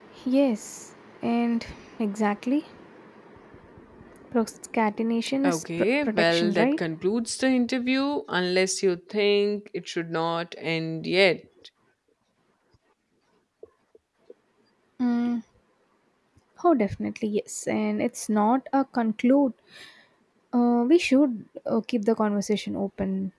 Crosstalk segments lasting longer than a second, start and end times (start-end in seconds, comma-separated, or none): 5.4-6.8